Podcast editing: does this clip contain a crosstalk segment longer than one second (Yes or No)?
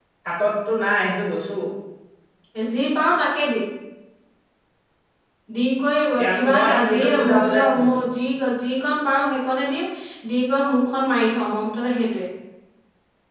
Yes